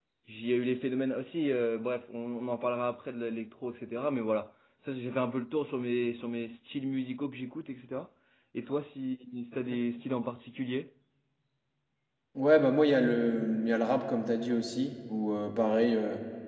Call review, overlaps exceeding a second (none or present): none